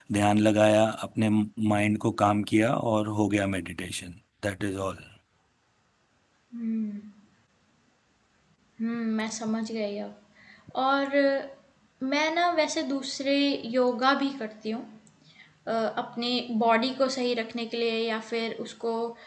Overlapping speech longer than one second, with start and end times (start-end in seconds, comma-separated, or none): none